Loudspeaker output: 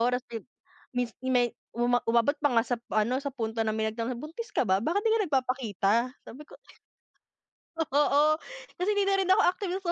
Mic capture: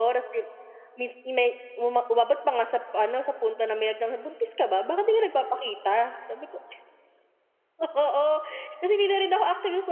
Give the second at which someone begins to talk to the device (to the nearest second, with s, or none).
none